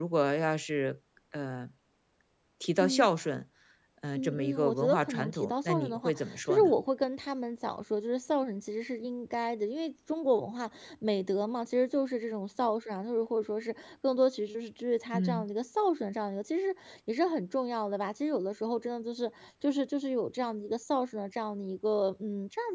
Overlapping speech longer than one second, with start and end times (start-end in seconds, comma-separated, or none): 4.1-6.7